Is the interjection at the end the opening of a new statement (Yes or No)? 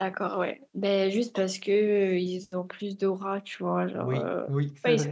Yes